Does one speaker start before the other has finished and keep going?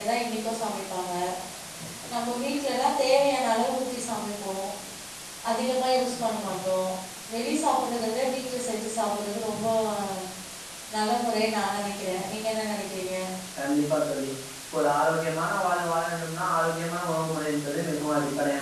No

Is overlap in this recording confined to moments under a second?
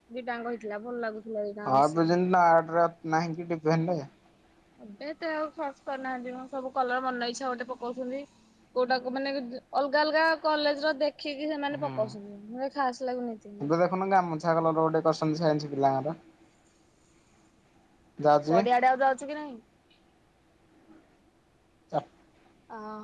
Yes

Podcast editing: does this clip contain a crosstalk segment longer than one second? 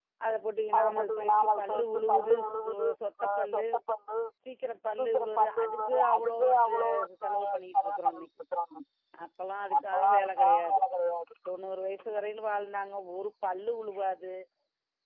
Yes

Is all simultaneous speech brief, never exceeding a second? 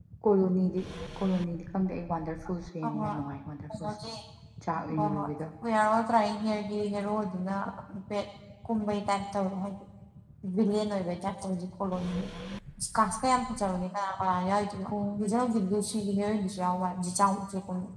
Yes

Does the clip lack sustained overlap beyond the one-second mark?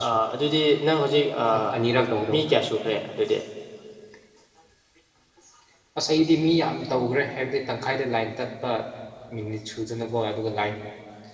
Yes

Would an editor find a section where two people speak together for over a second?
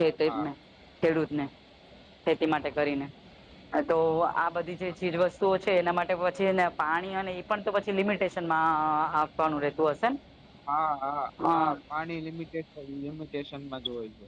No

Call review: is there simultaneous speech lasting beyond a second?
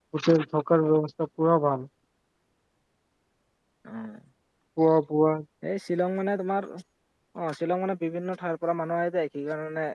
No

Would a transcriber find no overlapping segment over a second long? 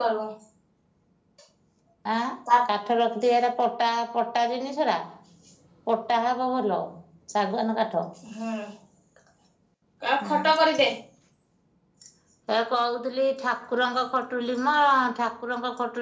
Yes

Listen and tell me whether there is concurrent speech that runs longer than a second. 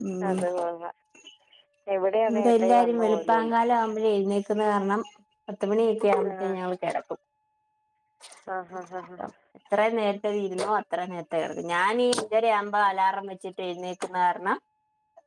Yes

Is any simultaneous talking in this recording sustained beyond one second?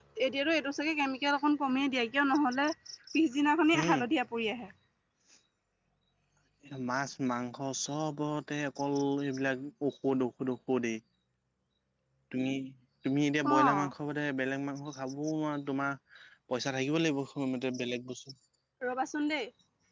No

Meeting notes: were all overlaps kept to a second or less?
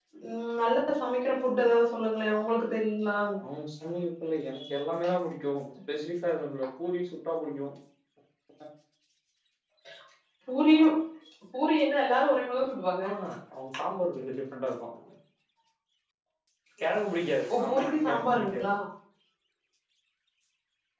No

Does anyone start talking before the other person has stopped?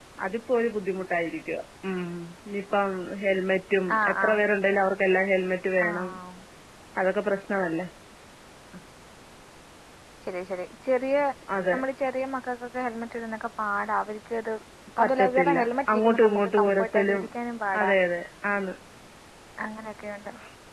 Yes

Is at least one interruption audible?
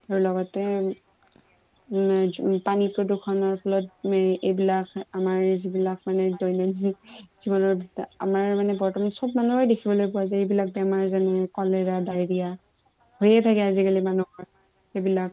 No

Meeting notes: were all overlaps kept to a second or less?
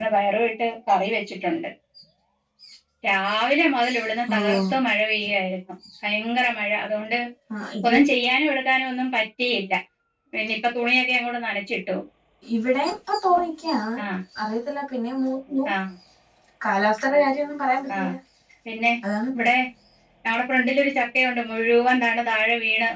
Yes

